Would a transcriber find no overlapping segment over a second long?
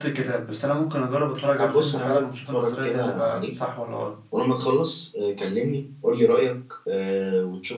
No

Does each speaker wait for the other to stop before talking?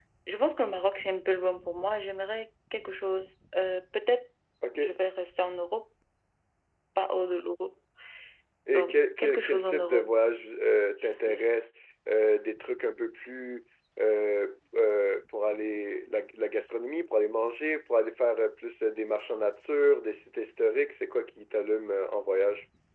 No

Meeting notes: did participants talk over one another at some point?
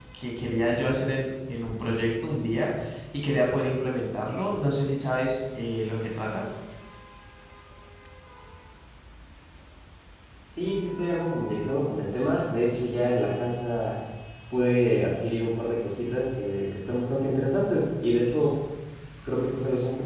No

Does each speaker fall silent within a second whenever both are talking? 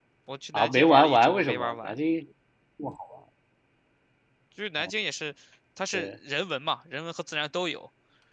No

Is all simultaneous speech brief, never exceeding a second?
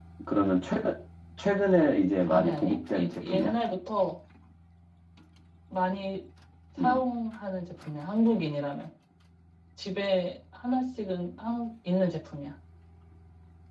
No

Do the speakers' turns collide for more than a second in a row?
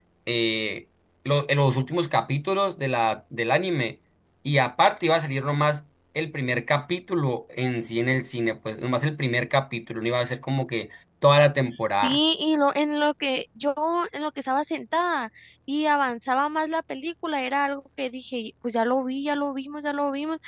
No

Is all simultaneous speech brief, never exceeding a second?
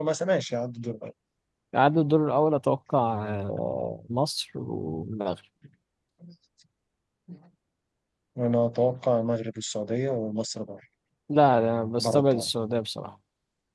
Yes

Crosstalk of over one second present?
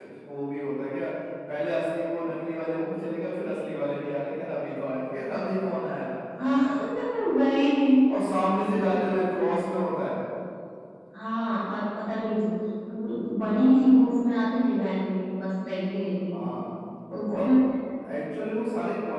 No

